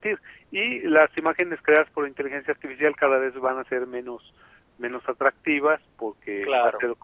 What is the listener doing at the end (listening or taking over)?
listening